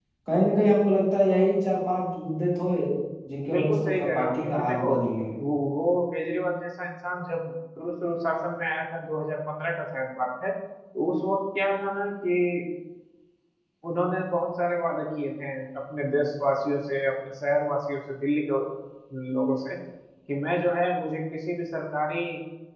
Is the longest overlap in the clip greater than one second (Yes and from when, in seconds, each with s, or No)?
Yes, from 3.5 s